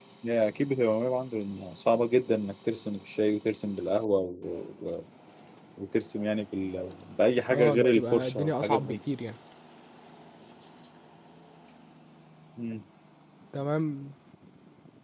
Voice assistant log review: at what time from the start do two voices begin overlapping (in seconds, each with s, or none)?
7.5 s